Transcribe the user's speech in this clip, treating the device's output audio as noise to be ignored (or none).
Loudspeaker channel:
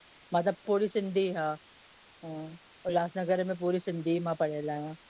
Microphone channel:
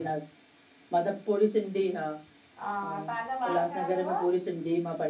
हा तव्हांजा ॿार घणा थव